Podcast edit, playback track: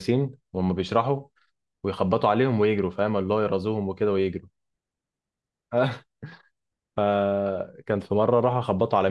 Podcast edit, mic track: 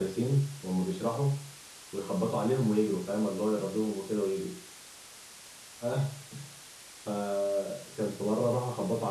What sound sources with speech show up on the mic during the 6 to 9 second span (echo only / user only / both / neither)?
echo only